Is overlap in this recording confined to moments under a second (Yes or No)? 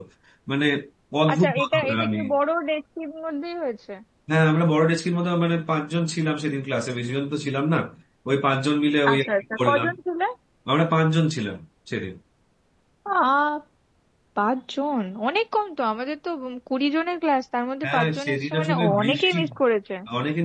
No